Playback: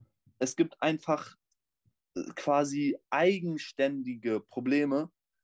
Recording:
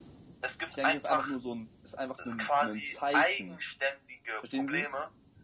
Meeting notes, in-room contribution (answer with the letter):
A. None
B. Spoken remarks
B